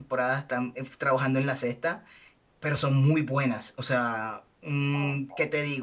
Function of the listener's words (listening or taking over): listening